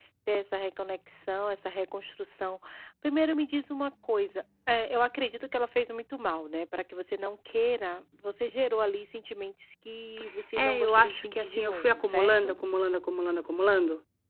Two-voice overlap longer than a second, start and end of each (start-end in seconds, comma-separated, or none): 10.6-12.5